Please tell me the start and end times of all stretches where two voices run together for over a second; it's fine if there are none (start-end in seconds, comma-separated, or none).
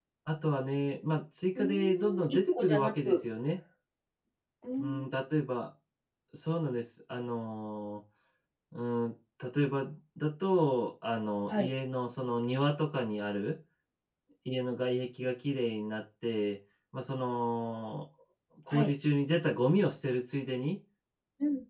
1.6-3.2